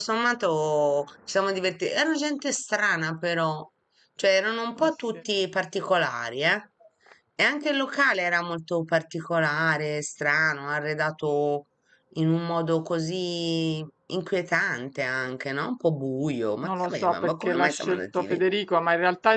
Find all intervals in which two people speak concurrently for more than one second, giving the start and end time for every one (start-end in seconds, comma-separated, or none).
16.6-18.4